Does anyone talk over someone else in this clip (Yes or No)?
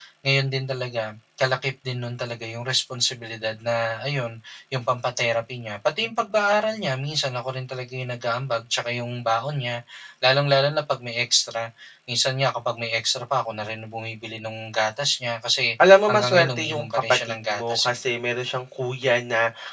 Yes